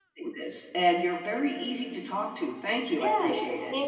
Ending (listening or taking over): taking over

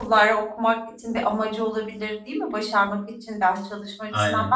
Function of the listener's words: listening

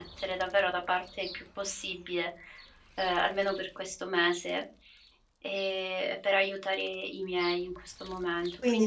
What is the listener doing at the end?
taking over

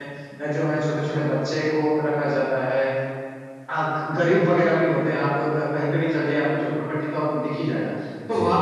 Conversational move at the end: listening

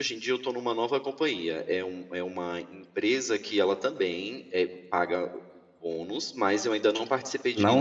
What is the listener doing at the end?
taking over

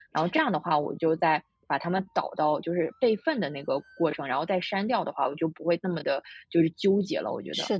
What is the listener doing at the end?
taking over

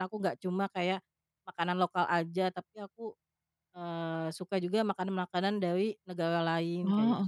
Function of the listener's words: taking over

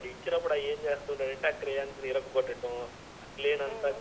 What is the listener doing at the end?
listening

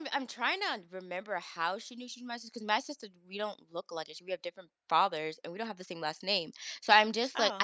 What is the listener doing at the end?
listening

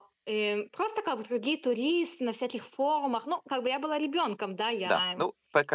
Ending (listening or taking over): taking over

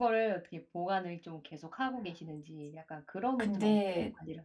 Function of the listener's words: taking over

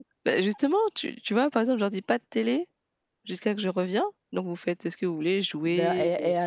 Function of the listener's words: taking over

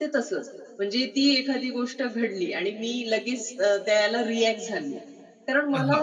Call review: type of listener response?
listening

